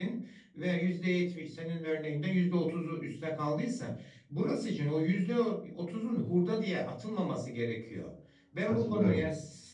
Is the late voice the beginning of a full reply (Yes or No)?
No